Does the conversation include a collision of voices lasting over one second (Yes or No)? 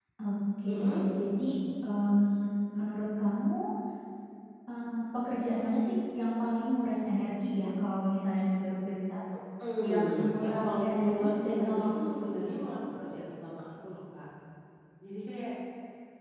Yes